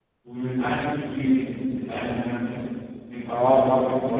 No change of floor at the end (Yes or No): No